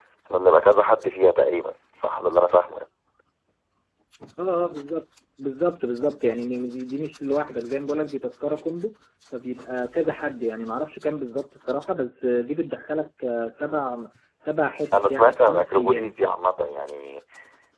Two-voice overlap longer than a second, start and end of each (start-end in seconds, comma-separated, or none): 14.9-16.2